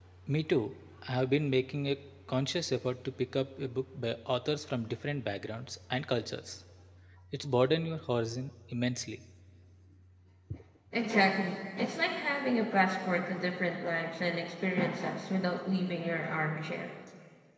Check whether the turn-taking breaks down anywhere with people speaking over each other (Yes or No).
No